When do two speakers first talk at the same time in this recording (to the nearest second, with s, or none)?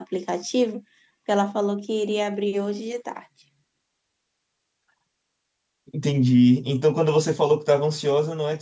none